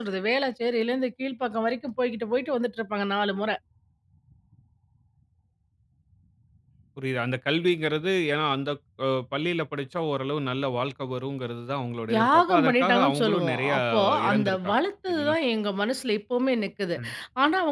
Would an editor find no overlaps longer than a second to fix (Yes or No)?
No